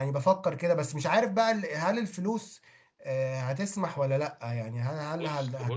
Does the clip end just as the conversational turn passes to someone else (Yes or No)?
Yes